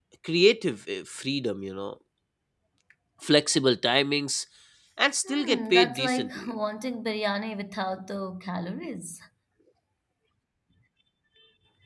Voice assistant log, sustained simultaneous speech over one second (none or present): present